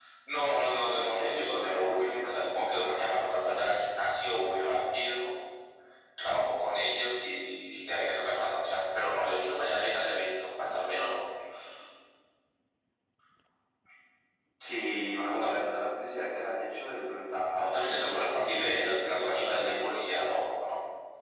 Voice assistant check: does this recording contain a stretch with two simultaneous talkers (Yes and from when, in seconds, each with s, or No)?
Yes, from 0.9 s